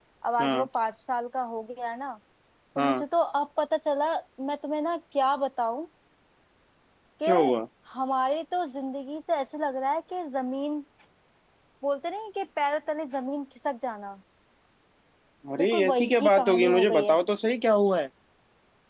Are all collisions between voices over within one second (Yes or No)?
No